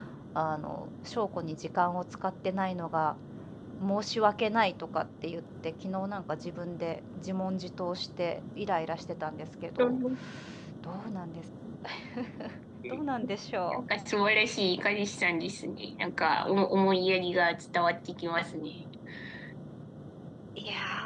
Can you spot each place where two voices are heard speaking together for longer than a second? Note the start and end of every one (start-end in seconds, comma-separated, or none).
none